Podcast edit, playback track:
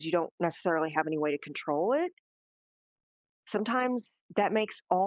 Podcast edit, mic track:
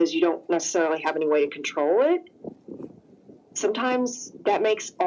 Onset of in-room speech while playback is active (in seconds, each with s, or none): none